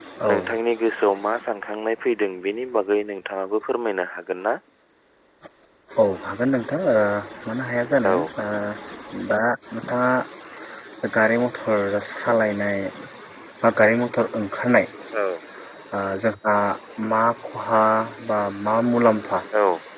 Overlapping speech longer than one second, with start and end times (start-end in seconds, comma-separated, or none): none